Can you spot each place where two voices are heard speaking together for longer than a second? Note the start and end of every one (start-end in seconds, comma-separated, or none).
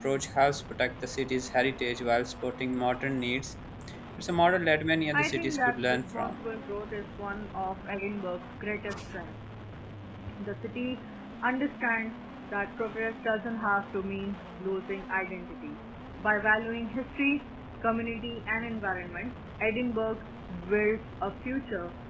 5.1-6.3